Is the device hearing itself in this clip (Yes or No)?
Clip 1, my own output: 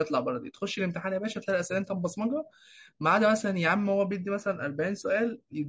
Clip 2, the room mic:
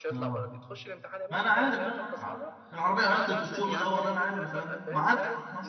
Yes